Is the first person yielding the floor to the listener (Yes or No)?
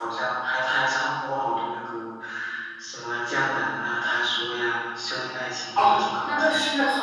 Yes